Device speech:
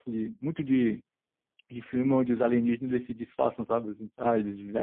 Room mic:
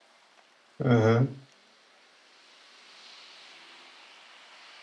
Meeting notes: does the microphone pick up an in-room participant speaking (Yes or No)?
Yes